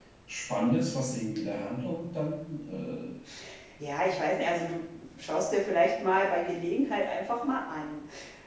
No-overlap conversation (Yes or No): Yes